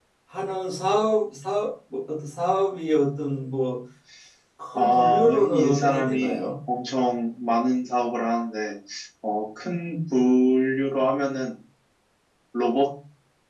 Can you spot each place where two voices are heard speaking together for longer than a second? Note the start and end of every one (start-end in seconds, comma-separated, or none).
4.8-6.5